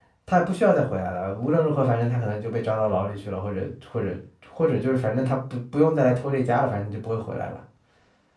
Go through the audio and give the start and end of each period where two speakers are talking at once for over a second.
none

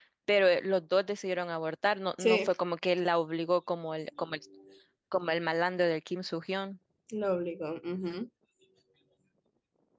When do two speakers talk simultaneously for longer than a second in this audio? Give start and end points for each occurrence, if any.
none

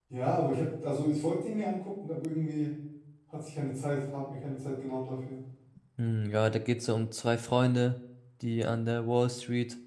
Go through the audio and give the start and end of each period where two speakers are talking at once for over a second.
none

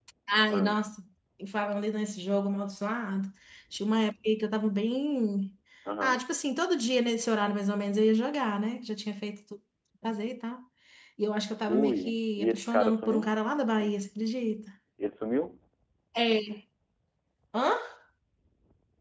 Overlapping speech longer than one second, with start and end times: 11.7-13.3

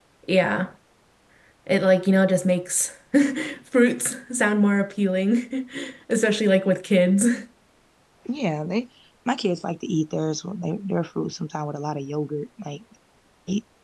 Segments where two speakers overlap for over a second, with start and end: none

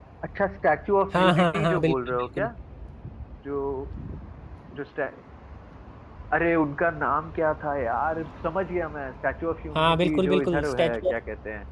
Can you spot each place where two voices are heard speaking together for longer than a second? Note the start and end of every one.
1.1-2.5, 9.8-11.1

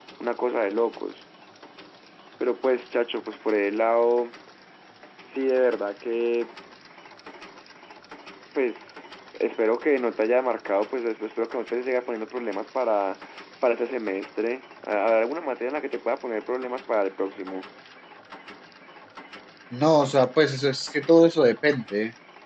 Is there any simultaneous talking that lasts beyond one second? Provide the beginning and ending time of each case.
none

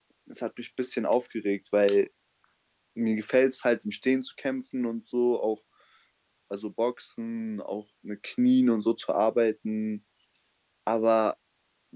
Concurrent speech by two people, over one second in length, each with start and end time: none

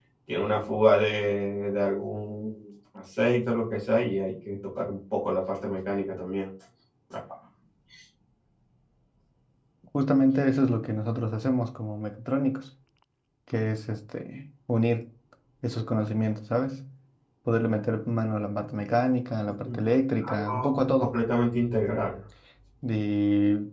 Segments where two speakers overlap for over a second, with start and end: 19.6-21.2

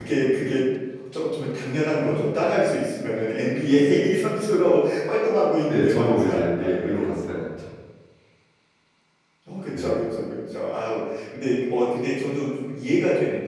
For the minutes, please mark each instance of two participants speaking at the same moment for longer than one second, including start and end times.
5.7-7.4

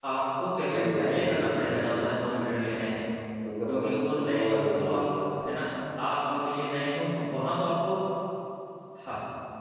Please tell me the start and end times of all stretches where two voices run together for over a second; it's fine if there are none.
0.7-2.0, 3.7-5.0

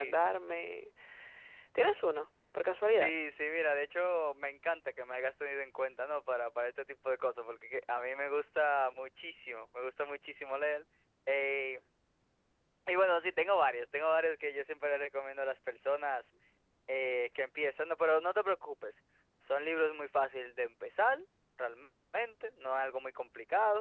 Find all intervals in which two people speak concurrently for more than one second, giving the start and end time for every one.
none

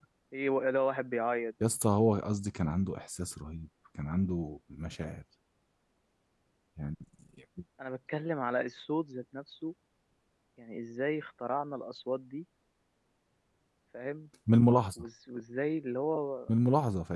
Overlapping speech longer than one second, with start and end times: none

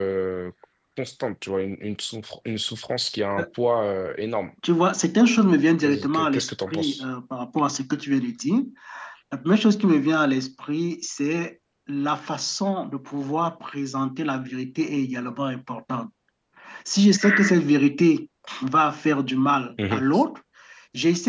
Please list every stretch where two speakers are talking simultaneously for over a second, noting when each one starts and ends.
5.8-7.0

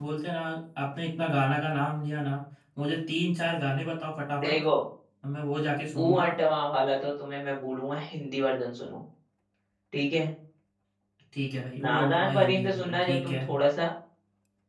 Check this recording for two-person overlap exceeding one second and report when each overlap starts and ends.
11.8-13.4

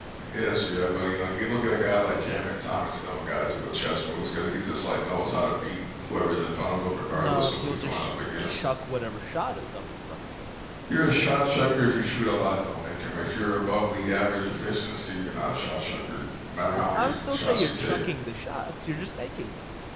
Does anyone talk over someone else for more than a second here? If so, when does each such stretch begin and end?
7.1-8.6, 16.8-18.0

